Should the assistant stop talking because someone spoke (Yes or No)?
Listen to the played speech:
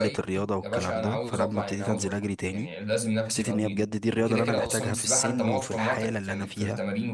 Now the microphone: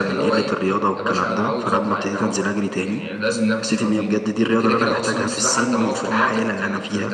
No